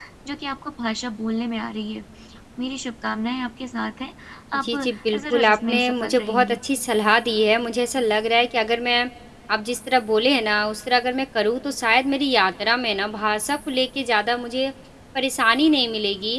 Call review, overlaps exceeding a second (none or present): present